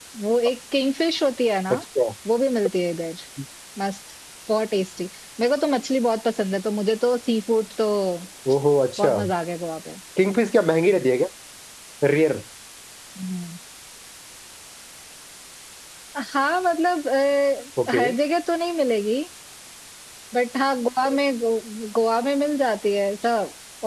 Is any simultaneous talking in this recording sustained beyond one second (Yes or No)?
No